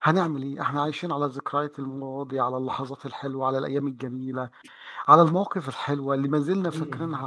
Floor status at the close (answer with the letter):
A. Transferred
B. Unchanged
B